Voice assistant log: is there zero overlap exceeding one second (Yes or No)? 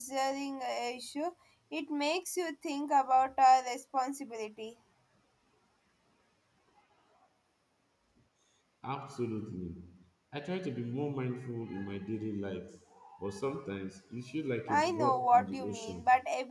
No